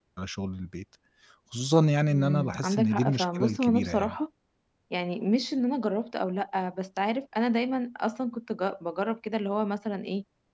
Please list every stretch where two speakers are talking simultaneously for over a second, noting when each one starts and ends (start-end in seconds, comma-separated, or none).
2.1-4.2